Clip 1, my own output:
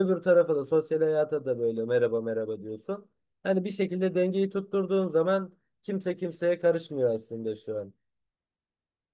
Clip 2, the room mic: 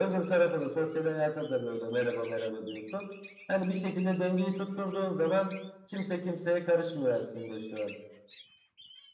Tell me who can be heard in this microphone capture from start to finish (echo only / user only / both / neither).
echo only